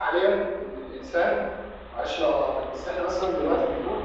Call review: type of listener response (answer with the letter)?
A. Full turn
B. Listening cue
B